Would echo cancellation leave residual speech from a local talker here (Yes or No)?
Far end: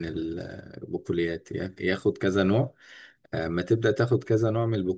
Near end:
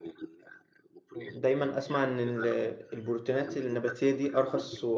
Yes